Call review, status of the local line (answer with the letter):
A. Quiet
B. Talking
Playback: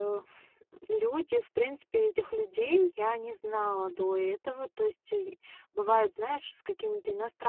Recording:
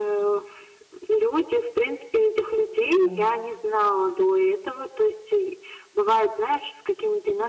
B